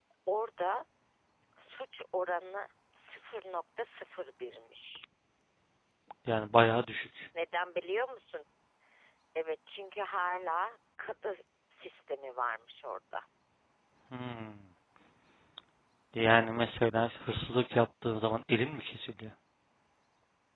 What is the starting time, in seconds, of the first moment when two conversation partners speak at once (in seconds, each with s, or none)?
none